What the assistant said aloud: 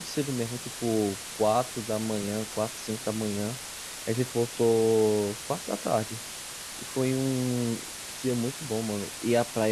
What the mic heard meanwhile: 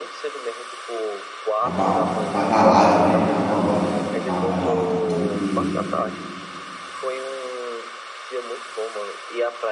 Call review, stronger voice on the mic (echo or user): user